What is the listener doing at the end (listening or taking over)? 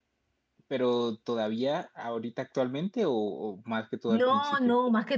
taking over